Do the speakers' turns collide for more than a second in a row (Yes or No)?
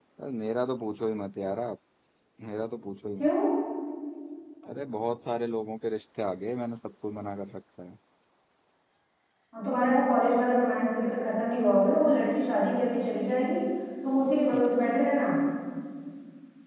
No